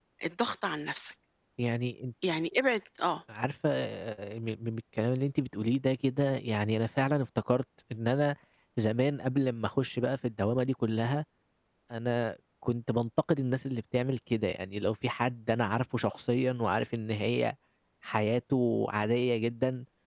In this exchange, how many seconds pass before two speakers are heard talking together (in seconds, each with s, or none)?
none